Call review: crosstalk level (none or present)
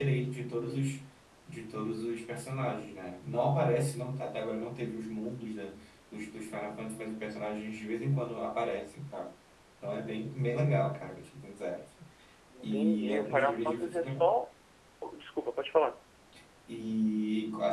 present